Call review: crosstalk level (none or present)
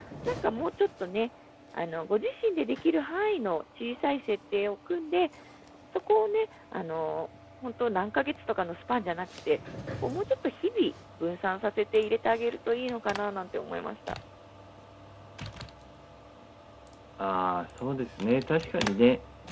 none